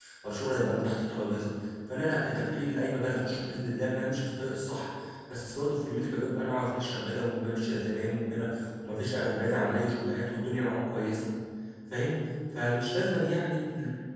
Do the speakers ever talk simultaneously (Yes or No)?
No